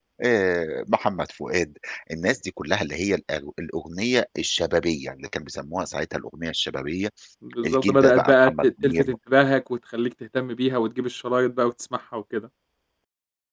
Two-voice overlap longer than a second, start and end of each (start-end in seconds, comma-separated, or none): 7.7-9.1